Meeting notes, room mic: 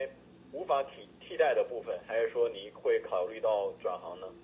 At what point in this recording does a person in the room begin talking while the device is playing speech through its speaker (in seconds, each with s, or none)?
none